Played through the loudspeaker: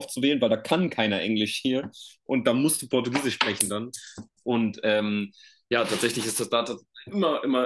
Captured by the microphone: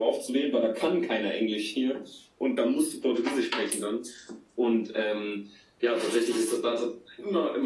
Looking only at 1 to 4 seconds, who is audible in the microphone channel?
echo only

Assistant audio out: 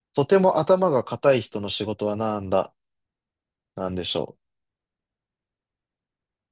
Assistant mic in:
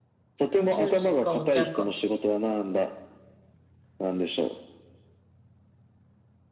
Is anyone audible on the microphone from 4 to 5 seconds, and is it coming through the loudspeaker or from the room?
echo only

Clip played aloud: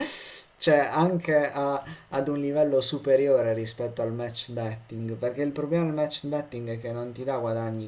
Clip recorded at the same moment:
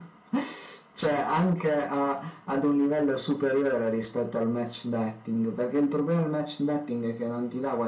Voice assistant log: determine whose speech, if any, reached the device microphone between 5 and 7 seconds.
echo only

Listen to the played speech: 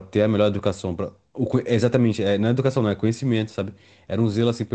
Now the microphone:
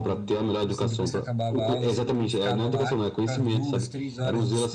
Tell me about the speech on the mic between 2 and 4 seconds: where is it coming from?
both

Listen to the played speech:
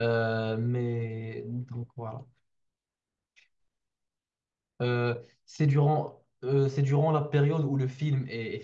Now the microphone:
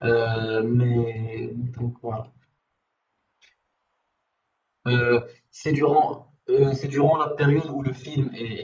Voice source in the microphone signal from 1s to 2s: echo only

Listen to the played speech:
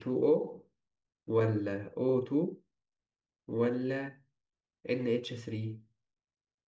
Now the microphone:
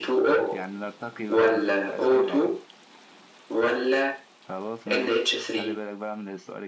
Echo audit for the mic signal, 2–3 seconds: both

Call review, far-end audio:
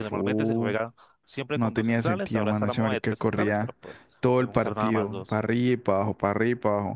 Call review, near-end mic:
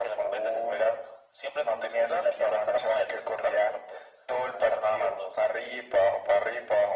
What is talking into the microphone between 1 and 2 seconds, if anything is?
echo only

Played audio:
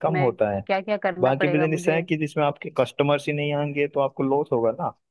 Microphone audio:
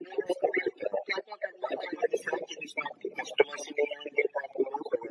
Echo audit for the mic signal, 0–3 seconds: echo only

